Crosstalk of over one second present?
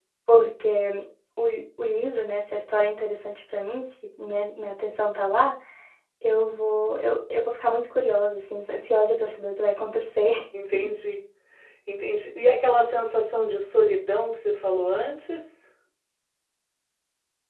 No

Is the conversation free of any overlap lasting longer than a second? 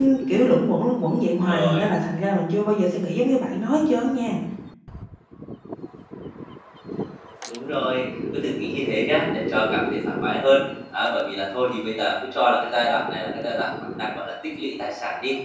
Yes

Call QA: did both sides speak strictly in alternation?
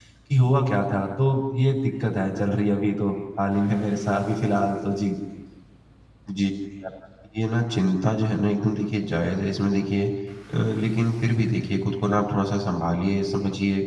Yes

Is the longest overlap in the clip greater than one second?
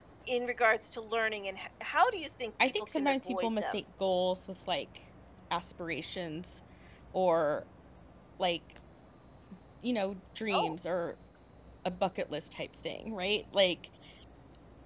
Yes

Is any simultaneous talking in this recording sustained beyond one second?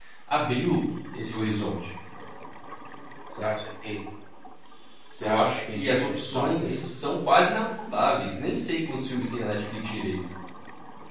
Yes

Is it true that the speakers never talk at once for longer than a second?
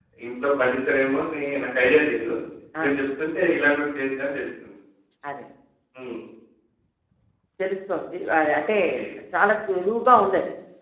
Yes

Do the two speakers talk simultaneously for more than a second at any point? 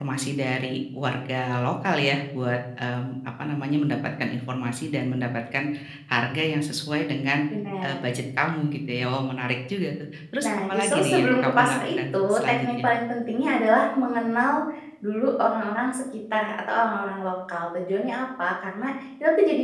Yes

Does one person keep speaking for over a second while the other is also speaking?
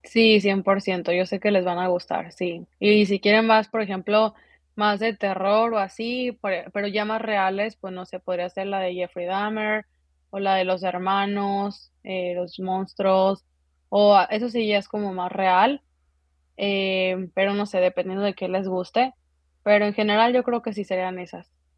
No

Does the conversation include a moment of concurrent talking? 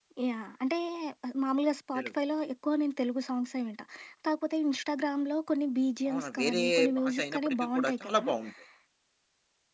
Yes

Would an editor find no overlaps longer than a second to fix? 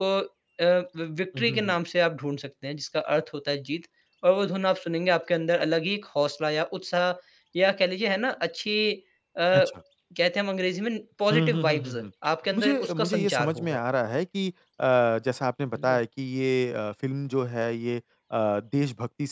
No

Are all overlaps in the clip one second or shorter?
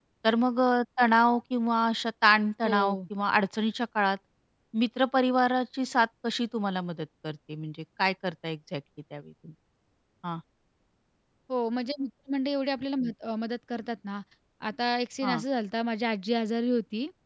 Yes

